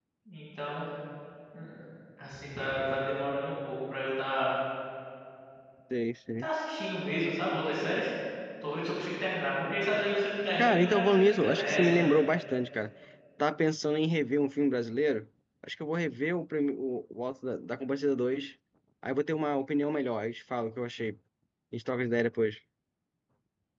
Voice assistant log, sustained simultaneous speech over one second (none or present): present